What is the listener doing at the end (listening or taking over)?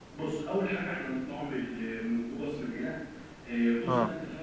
listening